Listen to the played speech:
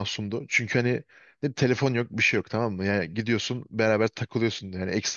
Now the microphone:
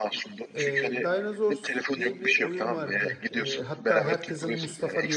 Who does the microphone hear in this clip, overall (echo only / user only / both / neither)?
both